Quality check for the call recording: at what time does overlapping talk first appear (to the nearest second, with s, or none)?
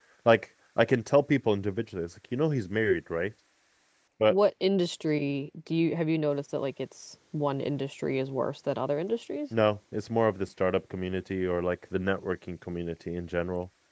none